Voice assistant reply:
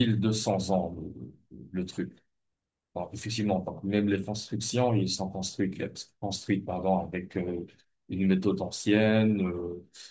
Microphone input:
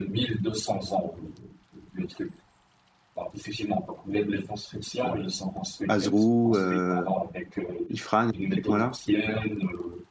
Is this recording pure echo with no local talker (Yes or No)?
No